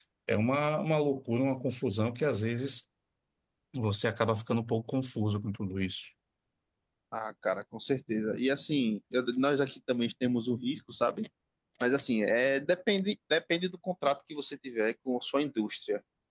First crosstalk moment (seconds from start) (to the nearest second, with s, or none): none